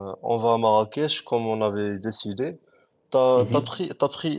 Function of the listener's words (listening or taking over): listening